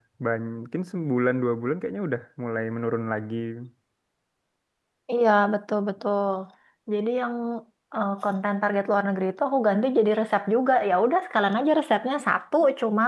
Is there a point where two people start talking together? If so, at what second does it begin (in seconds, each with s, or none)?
none